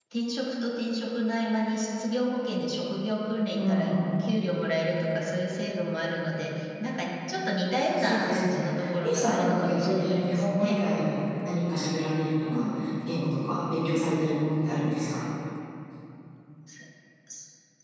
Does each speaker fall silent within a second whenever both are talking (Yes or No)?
No